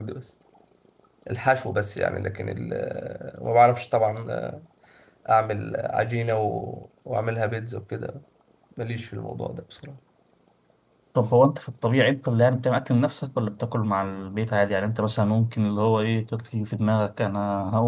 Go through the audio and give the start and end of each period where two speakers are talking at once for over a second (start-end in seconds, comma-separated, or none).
none